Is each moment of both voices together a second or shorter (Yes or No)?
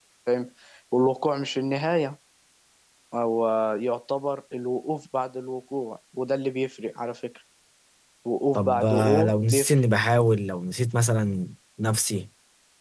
No